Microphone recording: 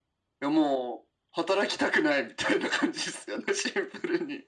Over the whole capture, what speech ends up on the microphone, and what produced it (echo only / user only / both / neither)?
echo only